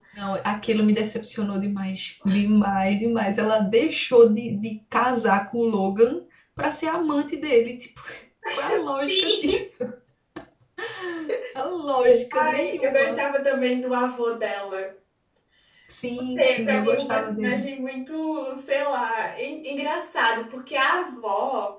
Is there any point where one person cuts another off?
Yes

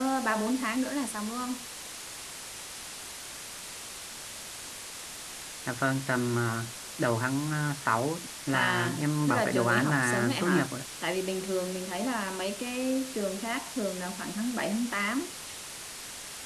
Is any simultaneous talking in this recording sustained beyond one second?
Yes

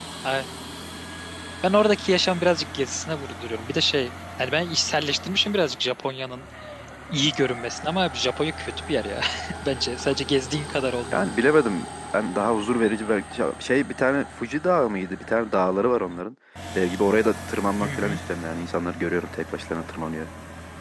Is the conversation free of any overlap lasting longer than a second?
Yes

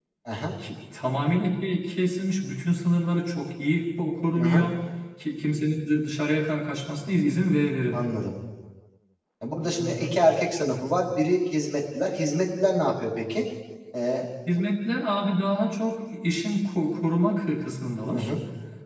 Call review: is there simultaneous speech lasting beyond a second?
No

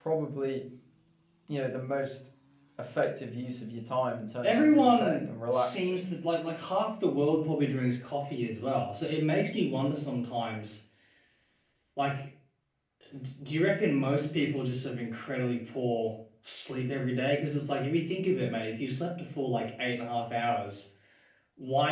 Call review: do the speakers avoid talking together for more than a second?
No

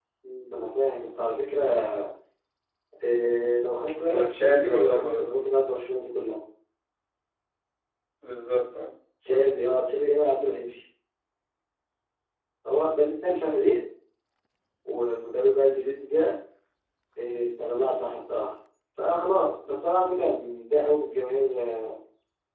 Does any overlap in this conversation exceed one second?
Yes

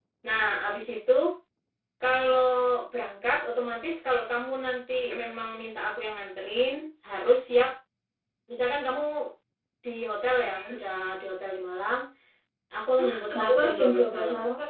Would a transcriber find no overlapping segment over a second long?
No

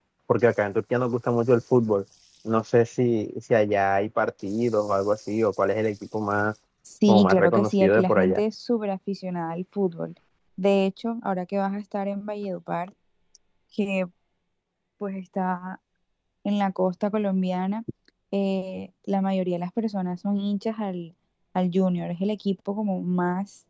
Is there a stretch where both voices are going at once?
Yes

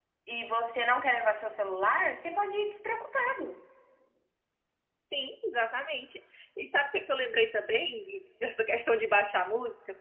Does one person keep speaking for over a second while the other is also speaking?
No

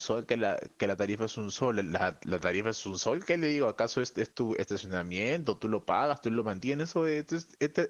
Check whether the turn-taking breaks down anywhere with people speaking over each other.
No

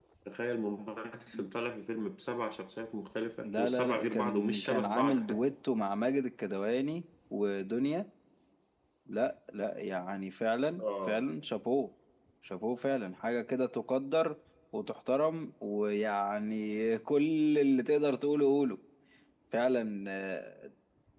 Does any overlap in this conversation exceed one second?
Yes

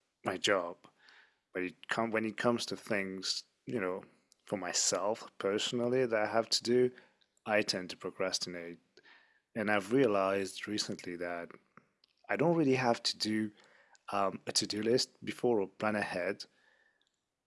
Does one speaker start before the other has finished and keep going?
No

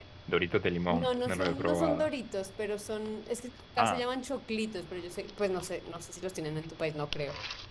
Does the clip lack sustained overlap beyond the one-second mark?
No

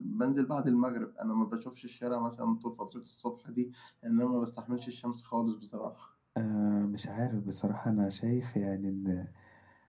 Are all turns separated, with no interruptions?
Yes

